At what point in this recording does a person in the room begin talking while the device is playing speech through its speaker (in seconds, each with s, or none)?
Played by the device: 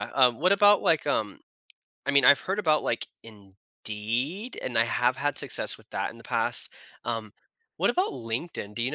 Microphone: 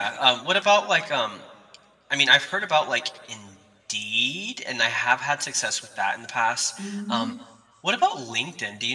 6.8 s